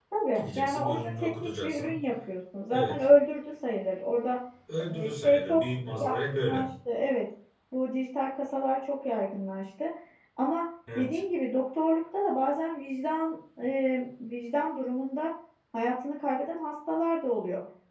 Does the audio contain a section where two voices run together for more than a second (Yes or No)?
Yes